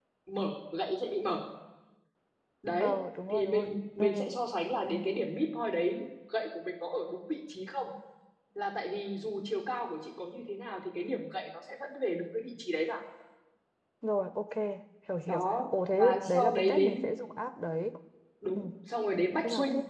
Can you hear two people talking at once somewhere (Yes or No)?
Yes